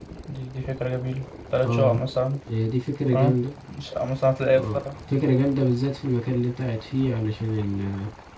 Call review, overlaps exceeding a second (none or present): none